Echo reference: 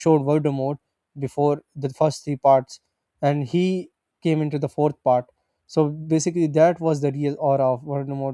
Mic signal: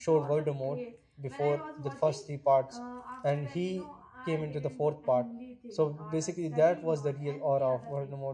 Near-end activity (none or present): present